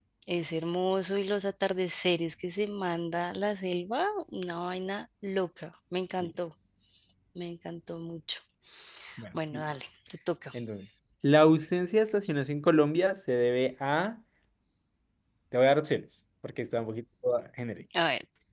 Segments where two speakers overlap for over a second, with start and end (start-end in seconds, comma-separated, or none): none